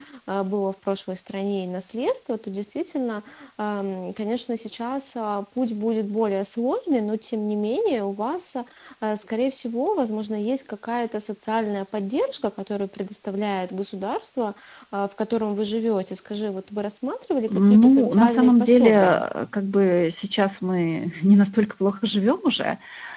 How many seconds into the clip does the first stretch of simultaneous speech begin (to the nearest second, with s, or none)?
17 s